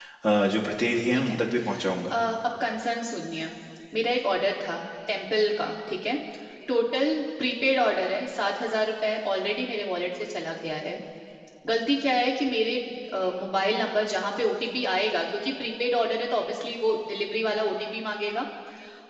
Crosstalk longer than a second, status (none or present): none